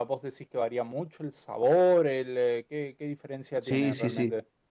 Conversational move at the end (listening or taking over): taking over